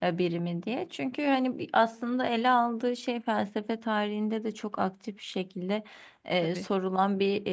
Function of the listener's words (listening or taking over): listening